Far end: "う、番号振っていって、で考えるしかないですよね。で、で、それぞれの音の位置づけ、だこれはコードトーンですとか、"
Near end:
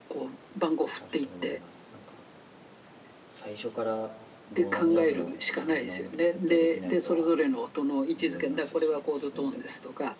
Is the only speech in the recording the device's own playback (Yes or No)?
No